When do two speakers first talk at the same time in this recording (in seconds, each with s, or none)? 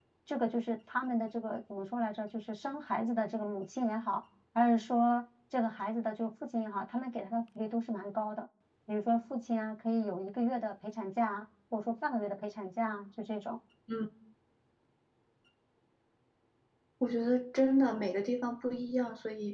none